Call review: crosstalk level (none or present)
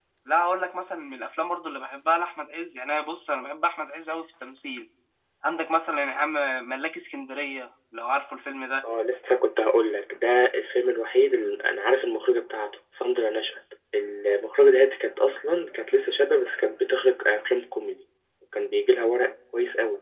none